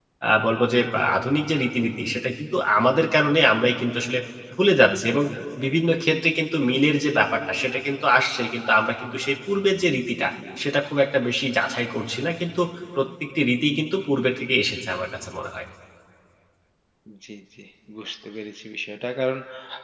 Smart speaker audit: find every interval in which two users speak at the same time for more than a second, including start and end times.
none

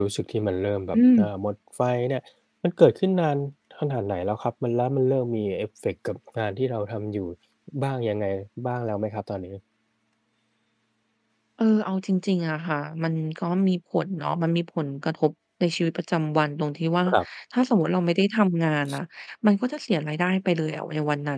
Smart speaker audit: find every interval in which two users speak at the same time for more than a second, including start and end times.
none

